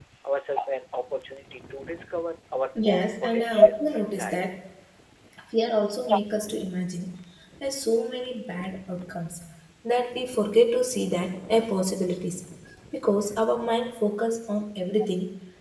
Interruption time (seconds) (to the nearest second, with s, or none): 3 s